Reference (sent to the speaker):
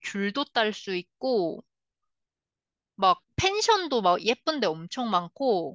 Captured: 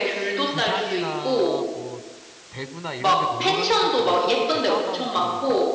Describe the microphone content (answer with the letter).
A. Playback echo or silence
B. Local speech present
B